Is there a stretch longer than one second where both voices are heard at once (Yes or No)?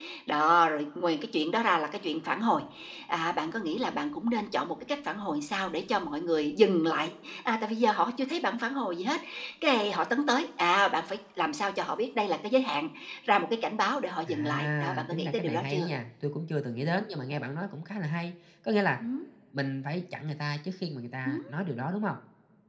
Yes